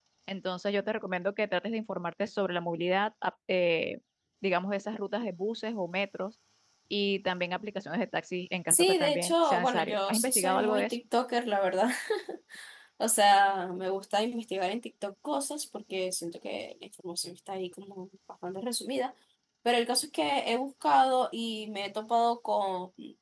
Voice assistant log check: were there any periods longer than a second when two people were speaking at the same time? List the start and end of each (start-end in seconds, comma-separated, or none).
8.7-11.0